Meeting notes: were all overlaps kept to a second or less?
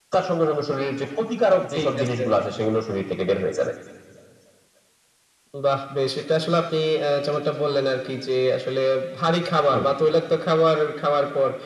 Yes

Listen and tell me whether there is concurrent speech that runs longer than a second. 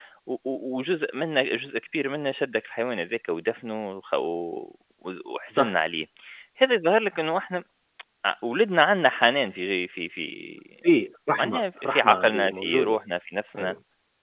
Yes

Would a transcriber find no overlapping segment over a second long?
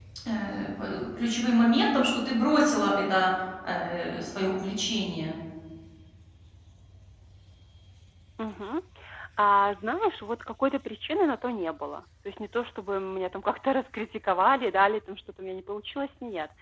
Yes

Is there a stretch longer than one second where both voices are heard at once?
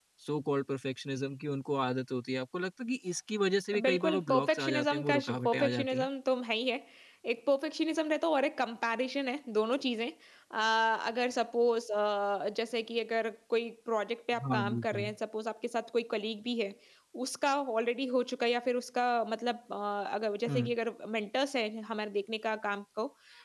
Yes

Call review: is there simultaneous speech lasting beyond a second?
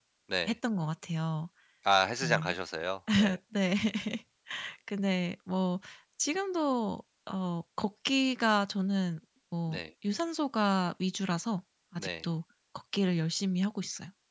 No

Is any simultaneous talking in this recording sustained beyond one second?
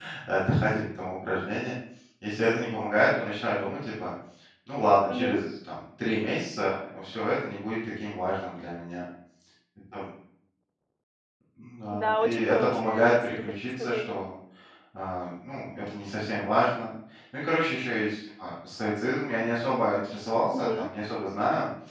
Yes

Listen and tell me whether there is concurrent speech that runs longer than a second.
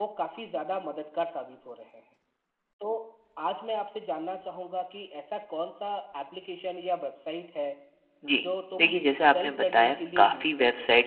Yes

